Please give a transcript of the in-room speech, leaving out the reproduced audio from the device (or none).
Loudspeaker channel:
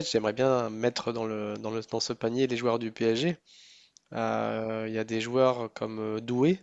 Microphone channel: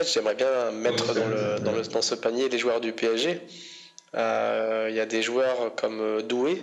oh, tout à fait, tout à fait. Ouais,